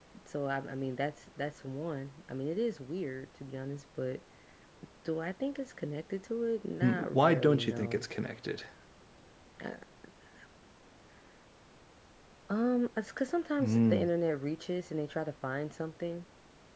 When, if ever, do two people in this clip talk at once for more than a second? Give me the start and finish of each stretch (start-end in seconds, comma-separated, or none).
6.8-8.1